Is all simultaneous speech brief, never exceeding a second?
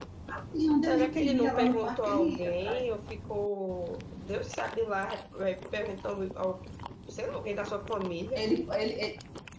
No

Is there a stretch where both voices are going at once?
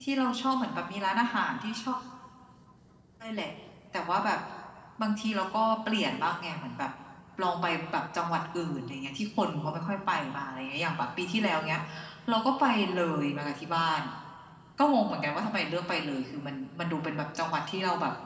No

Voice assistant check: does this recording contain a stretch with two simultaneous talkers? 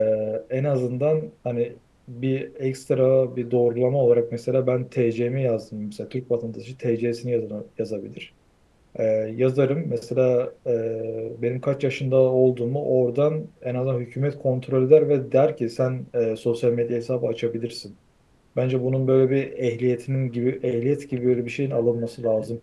No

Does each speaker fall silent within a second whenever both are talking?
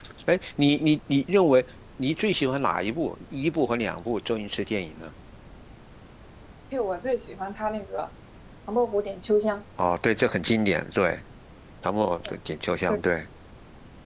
Yes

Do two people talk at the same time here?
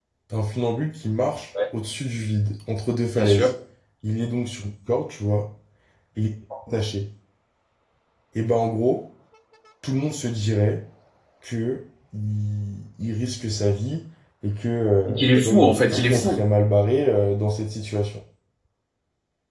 Yes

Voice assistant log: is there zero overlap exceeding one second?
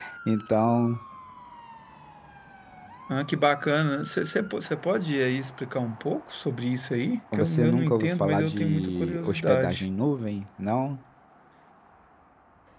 No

